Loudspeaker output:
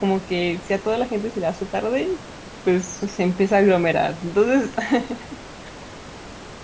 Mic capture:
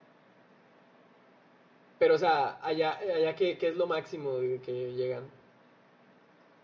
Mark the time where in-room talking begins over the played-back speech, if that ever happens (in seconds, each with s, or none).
2.0 s